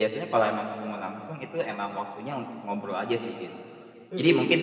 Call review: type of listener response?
listening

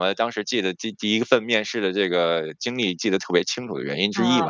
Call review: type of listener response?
taking over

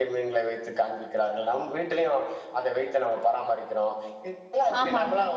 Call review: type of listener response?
listening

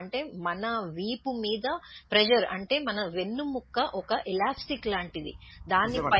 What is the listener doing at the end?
listening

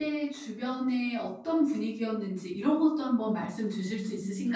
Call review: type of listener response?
taking over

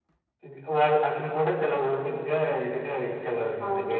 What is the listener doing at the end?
taking over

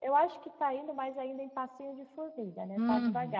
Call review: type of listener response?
taking over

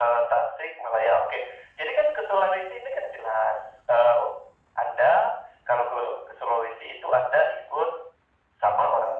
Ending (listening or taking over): listening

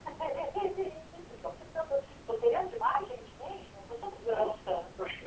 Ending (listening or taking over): taking over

